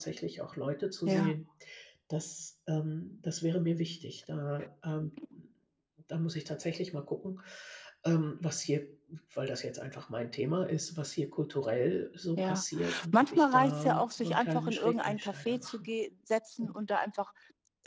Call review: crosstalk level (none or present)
present